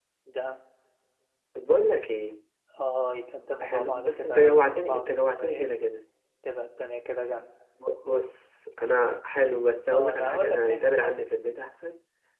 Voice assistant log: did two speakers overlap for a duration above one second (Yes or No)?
Yes